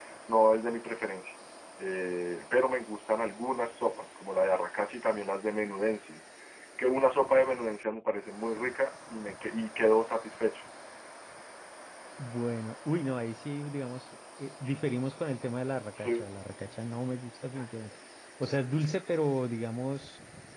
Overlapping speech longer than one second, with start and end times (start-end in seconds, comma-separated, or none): none